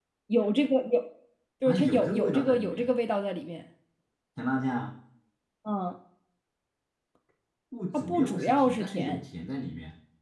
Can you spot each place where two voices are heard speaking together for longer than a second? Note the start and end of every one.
1.7-2.9, 7.9-9.2

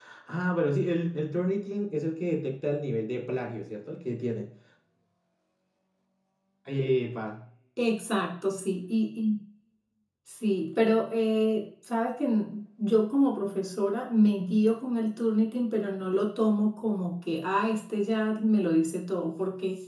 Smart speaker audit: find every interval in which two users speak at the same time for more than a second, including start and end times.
none

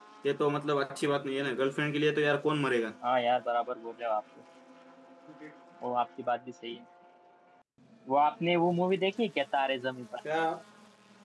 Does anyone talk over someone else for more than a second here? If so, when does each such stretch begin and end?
none

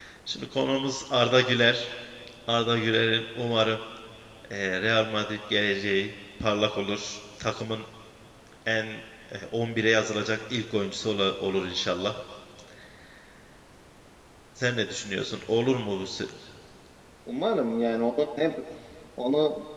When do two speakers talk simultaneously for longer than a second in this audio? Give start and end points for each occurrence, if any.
none

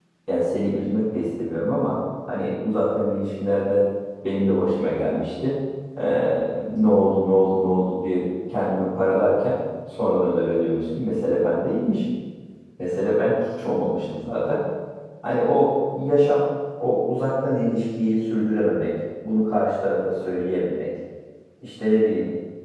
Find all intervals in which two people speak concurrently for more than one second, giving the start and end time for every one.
none

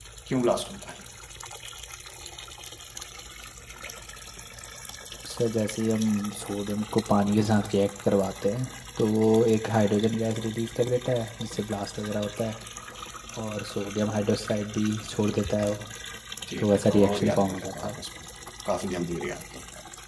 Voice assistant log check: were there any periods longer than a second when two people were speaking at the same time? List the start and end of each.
16.6-18.0

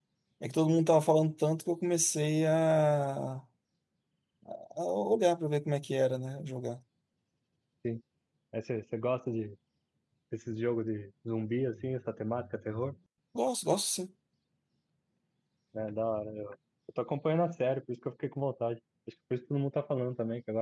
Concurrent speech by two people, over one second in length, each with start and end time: none

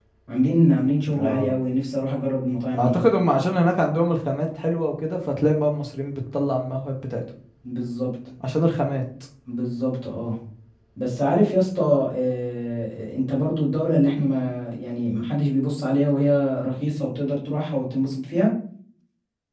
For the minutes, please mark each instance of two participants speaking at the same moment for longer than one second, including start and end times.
none

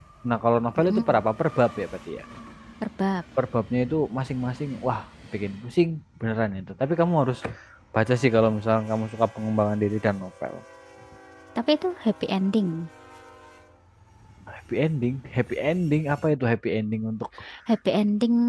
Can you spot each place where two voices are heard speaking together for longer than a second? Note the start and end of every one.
none

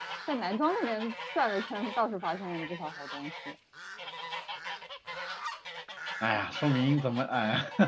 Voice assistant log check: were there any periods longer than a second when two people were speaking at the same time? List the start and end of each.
none

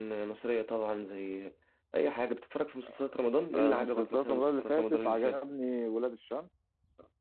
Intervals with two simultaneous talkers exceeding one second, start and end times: 3.5-5.4

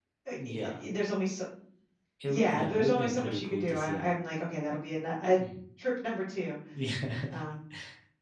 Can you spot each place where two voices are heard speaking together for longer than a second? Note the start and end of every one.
2.3-4.0

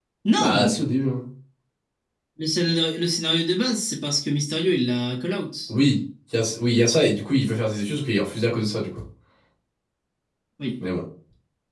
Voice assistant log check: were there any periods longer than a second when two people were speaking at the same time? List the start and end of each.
none

